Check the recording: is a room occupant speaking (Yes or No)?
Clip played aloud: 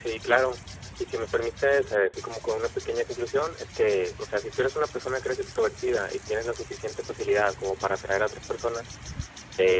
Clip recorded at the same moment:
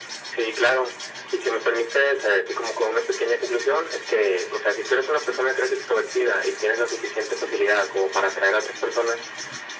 No